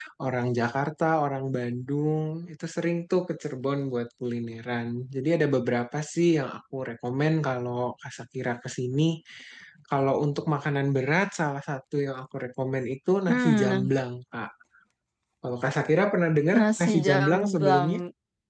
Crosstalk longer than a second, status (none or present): present